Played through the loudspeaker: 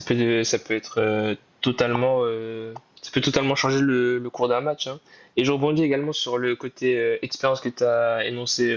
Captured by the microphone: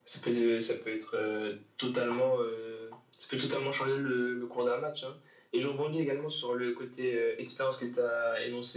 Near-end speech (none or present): none